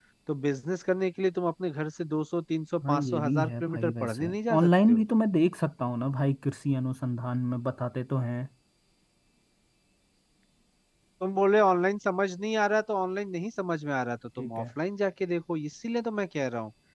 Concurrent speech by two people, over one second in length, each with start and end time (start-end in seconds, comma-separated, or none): 2.9-5.0